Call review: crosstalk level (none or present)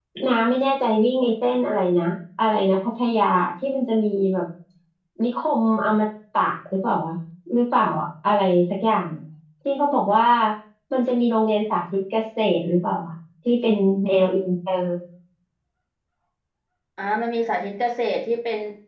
none